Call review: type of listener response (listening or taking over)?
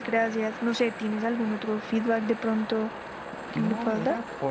taking over